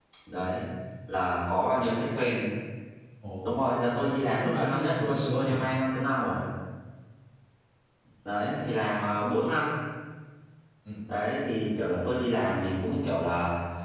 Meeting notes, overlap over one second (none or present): present